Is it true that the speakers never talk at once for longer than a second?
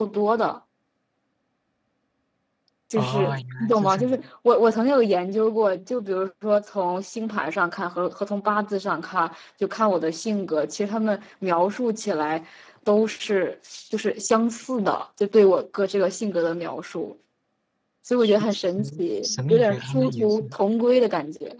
No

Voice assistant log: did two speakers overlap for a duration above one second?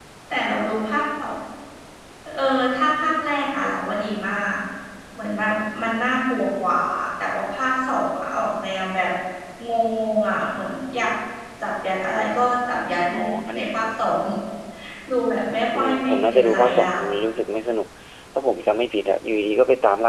Yes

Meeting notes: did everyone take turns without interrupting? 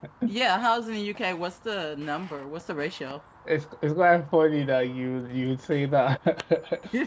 Yes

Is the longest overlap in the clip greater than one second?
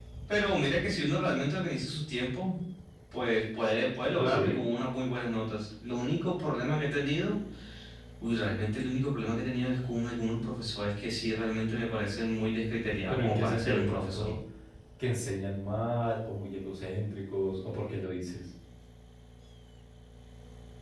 Yes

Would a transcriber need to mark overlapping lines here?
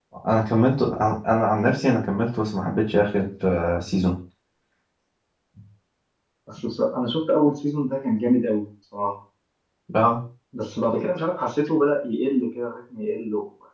No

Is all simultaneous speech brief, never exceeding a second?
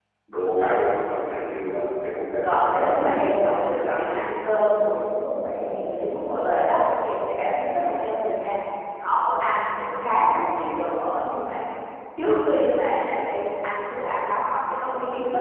No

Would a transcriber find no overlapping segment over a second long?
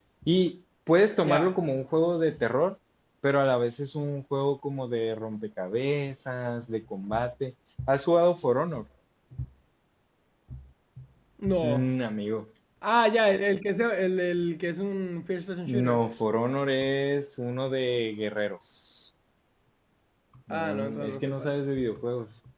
No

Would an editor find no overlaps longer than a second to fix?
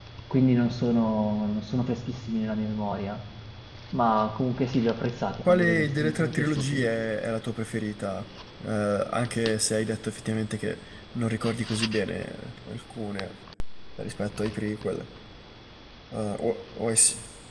No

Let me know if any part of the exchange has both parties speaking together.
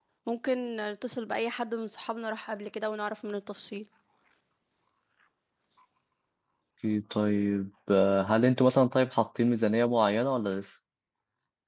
No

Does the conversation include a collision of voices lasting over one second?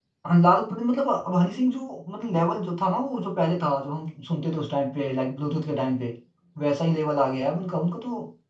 No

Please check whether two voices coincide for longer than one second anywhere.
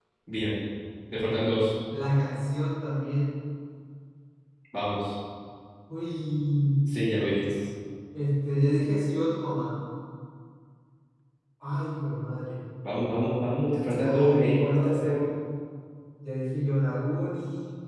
Yes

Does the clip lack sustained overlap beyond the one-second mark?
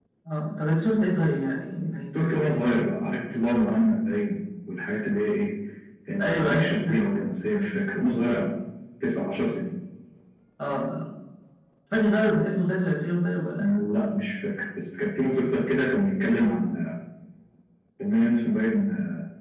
Yes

